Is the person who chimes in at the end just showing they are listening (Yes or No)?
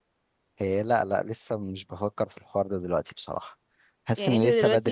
No